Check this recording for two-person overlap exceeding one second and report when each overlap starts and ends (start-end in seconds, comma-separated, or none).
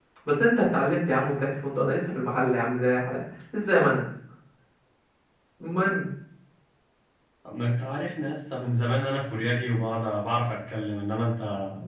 none